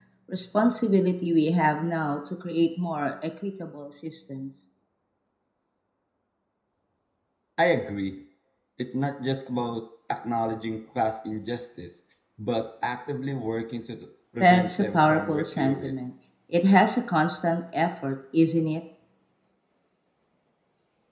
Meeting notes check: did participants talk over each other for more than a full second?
Yes, from 14.4 s

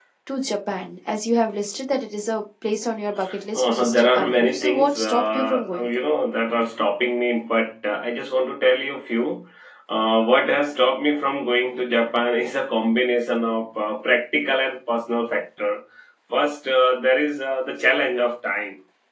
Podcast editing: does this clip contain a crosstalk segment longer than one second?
Yes, from 3.6 s

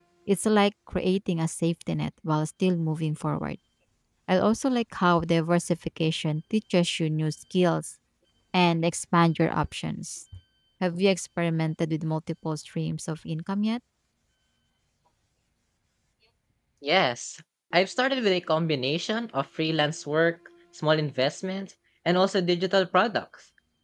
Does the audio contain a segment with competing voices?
No

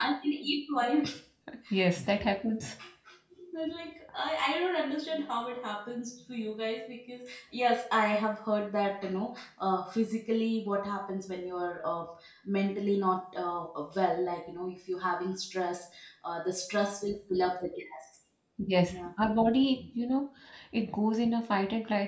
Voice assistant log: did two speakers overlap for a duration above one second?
No

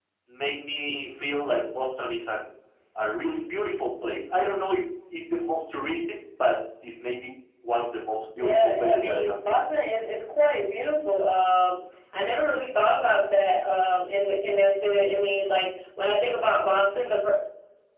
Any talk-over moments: Yes, from 8.4 s

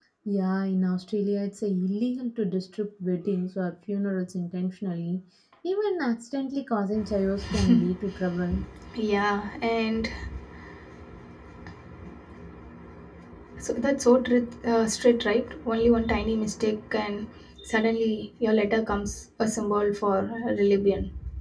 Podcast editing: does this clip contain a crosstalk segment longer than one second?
No

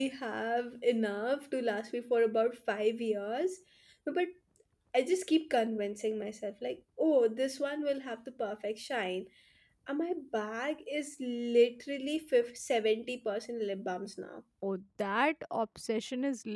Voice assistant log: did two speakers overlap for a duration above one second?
No

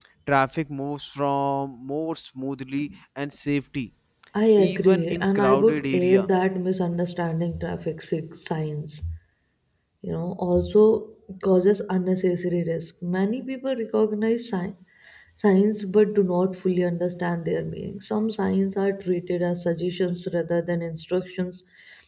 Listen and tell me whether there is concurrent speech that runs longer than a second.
Yes, from 4.6 s

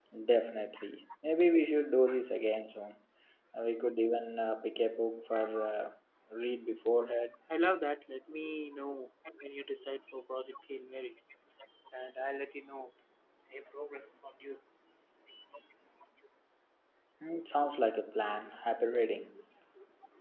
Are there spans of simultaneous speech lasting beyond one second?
No

